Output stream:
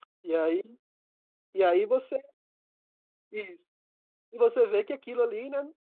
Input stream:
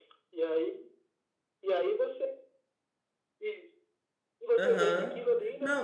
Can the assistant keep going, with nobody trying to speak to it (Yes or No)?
No